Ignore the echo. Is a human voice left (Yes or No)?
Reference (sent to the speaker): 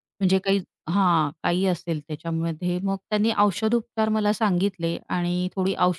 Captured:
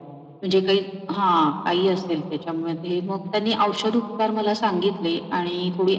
No